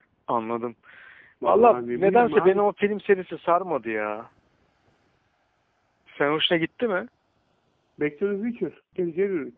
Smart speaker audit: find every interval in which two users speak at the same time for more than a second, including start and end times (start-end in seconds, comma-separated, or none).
1.4-2.7